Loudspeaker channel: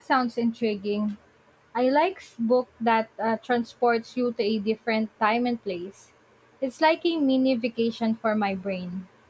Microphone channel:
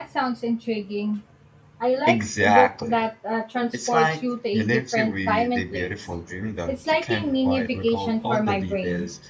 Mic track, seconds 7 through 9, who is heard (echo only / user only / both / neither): both